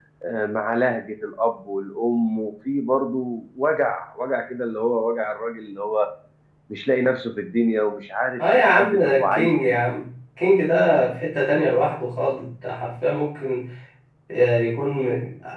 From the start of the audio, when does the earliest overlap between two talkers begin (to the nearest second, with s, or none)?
8 s